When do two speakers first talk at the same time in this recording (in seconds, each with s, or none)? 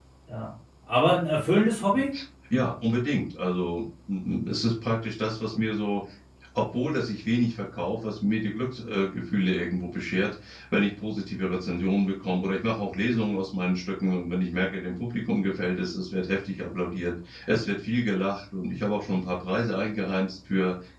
none